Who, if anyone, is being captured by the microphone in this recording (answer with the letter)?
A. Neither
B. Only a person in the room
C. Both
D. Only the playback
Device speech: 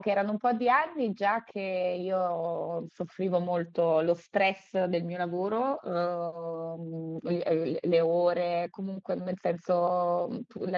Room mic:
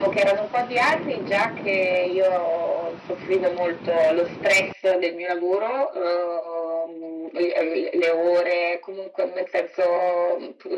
D